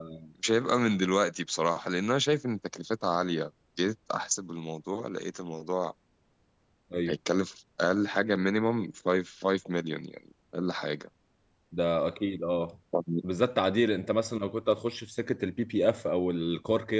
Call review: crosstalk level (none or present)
none